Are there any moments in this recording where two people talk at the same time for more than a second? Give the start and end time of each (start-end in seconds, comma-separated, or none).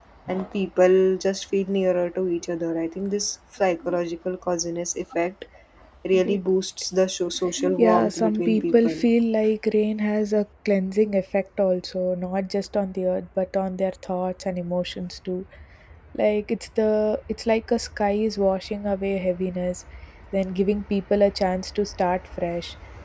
7.8-9.1